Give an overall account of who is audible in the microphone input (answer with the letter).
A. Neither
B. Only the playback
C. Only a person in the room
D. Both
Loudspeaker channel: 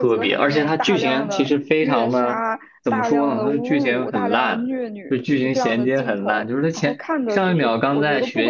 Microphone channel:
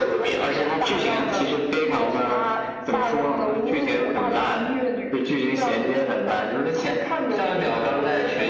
B